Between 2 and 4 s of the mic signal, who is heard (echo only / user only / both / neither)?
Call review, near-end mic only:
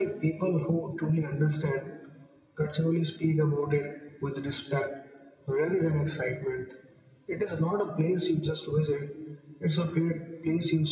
echo only